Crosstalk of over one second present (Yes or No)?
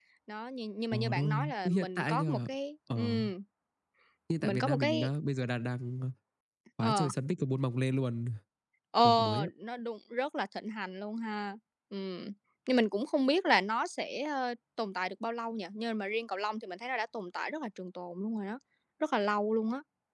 Yes